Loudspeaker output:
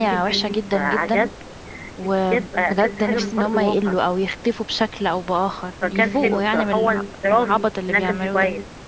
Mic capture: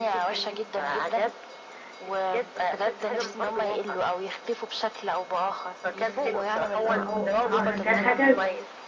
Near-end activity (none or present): present